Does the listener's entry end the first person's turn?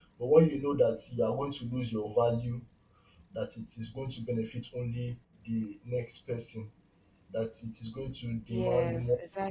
Yes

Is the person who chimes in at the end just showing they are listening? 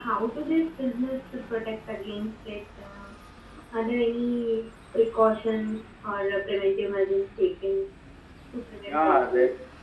No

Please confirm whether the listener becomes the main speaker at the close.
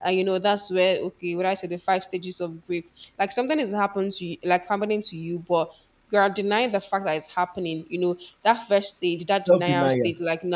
No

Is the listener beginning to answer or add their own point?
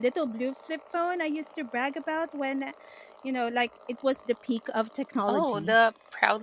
Yes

